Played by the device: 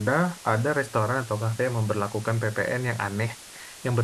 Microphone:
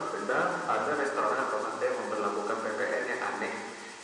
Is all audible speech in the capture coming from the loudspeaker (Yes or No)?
Yes